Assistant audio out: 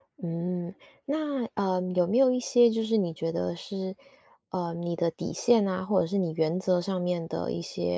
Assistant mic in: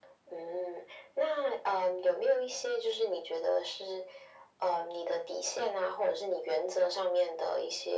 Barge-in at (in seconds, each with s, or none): none